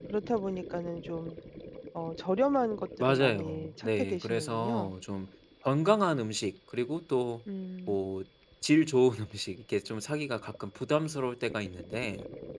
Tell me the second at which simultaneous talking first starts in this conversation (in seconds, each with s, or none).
3.0 s